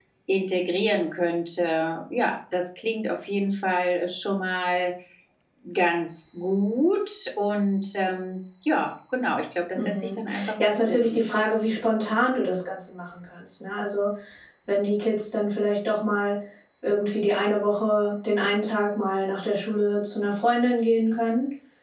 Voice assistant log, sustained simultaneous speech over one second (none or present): present